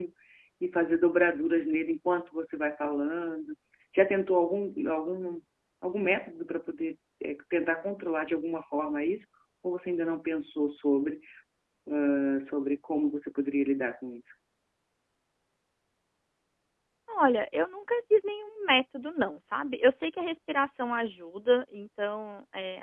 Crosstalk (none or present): none